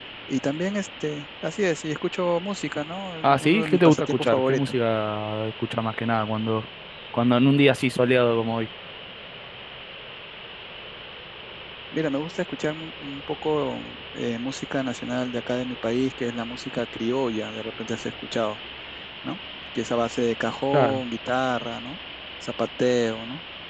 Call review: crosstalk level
present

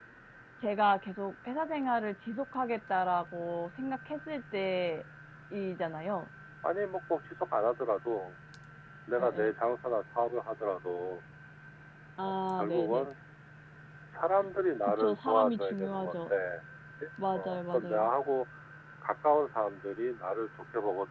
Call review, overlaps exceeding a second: present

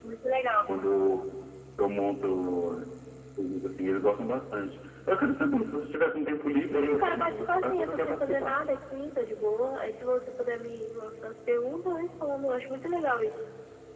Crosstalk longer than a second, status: present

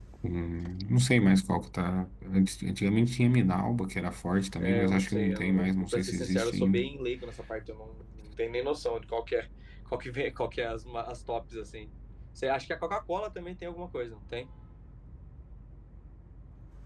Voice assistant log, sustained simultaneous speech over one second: present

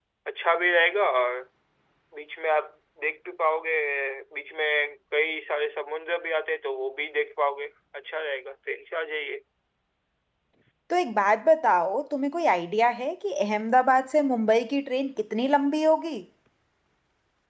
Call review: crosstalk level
none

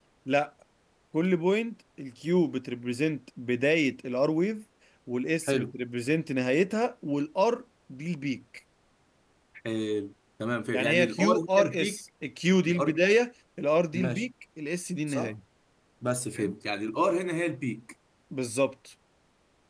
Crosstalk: present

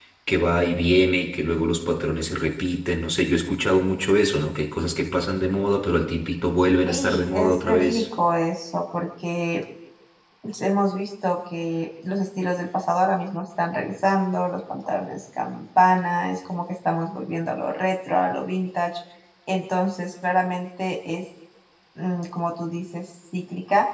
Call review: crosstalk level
present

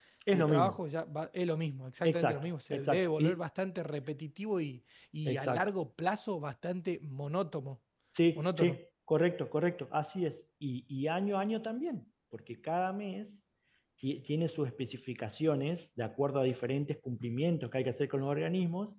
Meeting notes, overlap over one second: present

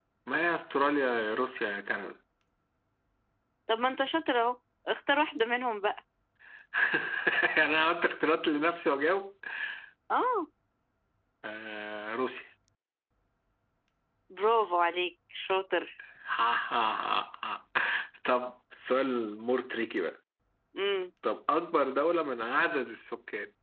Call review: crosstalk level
none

